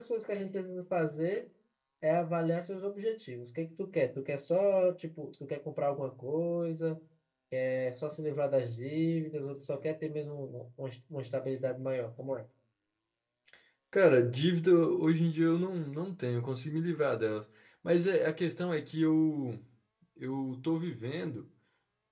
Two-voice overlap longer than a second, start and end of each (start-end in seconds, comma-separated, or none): none